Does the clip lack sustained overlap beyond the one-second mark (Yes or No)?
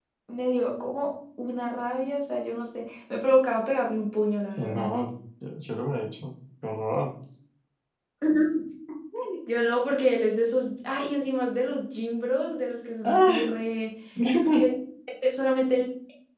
Yes